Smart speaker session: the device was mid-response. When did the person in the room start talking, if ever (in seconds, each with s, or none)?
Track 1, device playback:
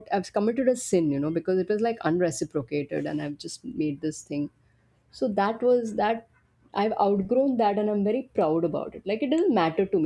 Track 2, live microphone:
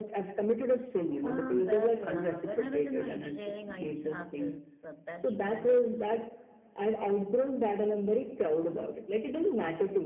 1.2 s